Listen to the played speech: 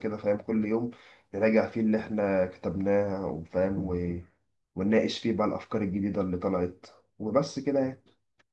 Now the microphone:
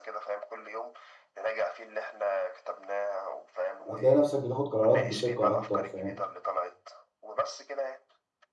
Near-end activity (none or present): present